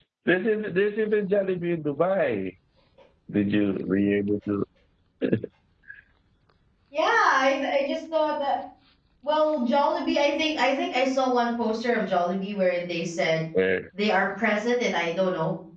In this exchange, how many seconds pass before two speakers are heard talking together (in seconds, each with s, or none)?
none